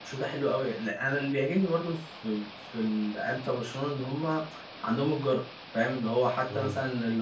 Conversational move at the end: listening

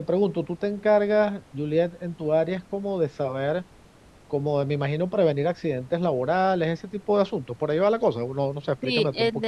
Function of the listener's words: taking over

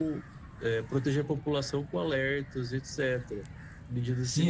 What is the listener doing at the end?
taking over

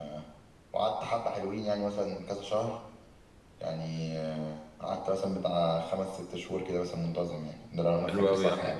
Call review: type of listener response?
taking over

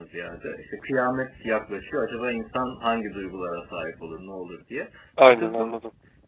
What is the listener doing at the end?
listening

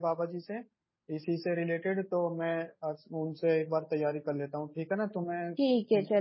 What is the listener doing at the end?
taking over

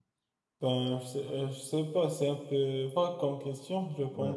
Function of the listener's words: taking over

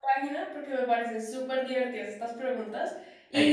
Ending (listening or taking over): listening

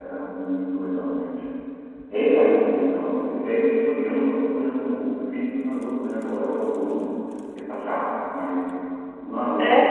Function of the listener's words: listening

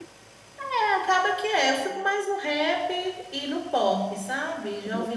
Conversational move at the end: listening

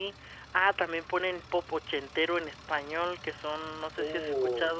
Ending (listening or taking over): listening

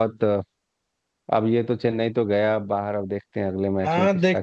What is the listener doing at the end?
taking over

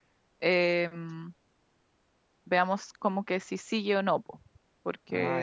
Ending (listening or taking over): listening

